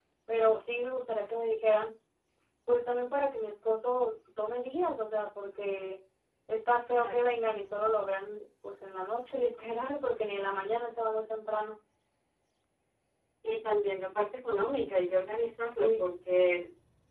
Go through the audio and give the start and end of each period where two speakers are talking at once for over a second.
none

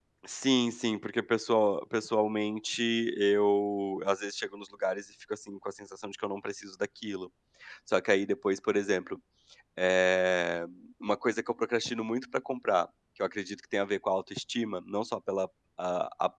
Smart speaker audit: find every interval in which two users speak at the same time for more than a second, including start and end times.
none

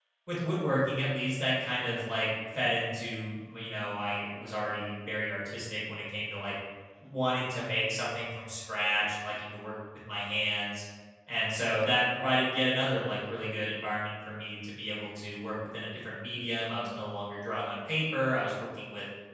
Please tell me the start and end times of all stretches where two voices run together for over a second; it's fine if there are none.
none

